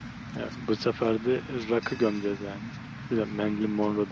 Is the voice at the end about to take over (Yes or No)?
No